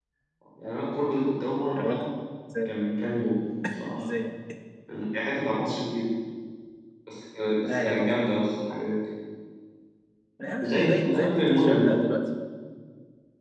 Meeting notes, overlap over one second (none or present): present